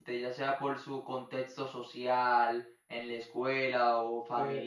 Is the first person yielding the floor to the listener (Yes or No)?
Yes